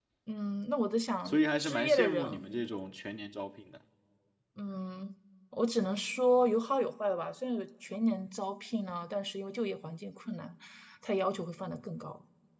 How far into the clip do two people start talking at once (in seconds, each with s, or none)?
1.2 s